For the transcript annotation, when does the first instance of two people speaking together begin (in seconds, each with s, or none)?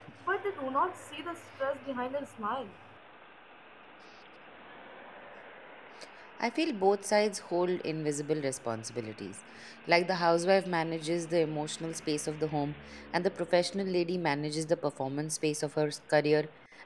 none